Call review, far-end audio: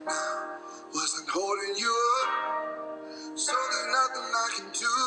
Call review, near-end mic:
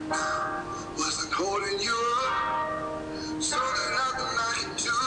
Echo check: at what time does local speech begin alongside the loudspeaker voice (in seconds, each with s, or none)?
none